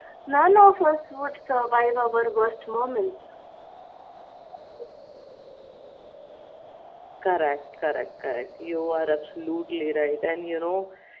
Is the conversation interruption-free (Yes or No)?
Yes